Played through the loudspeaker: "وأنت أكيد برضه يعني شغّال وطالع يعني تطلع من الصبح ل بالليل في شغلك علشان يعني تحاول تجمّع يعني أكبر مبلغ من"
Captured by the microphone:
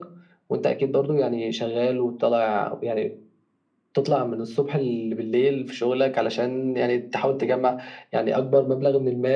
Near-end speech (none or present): none